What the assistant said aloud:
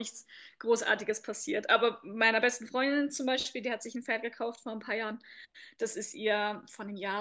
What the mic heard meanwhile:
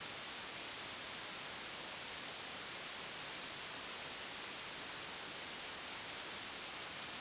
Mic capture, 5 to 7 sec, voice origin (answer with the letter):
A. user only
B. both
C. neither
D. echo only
C